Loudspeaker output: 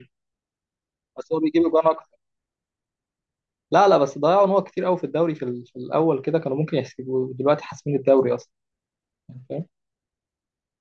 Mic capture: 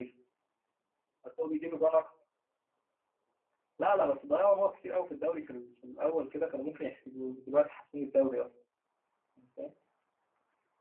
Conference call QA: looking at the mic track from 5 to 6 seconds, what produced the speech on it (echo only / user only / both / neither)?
echo only